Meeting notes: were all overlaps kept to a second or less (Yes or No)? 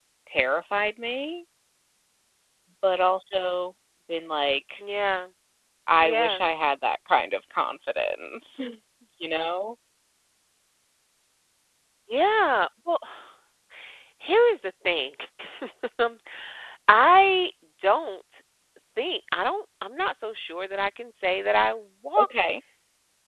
Yes